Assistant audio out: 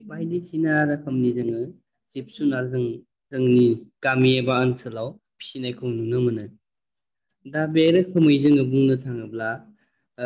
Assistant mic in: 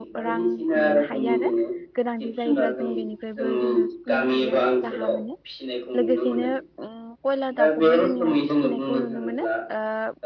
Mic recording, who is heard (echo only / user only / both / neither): both